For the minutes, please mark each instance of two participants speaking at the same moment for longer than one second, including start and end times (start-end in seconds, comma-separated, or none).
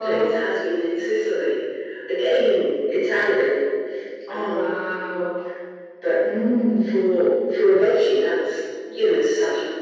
none